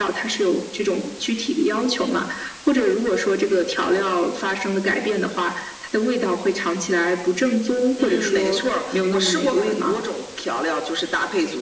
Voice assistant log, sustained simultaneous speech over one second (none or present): present